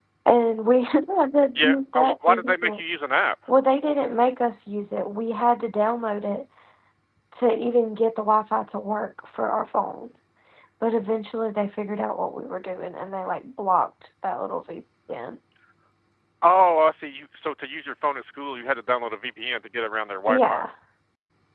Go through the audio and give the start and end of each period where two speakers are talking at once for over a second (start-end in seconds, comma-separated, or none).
1.6-2.8